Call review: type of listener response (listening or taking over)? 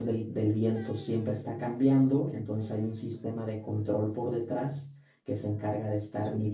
listening